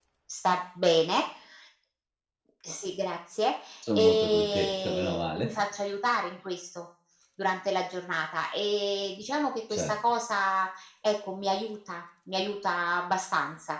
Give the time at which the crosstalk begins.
3.9 s

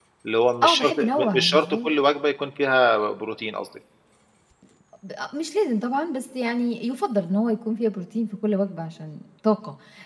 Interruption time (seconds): 0.6 s

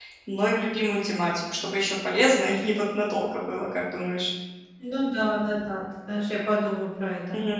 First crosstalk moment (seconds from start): none

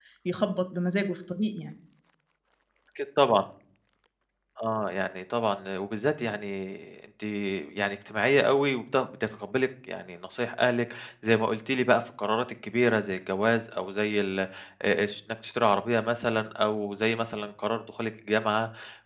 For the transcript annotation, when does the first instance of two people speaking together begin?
none

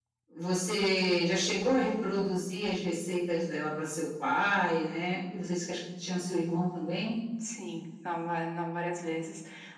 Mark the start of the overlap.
none

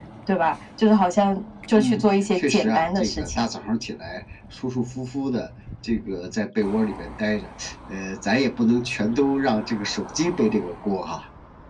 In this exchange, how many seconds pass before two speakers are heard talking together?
1.8 s

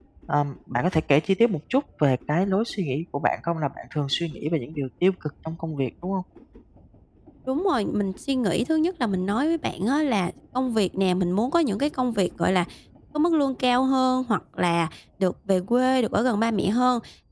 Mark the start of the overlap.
none

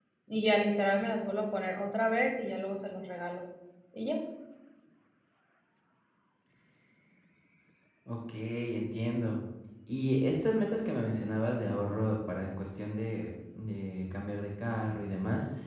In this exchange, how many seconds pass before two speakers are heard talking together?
none

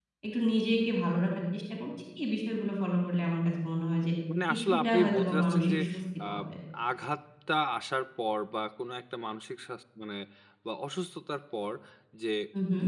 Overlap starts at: 4.5 s

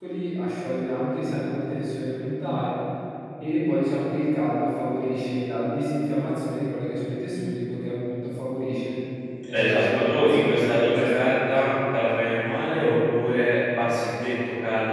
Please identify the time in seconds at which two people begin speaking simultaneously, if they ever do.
9.5 s

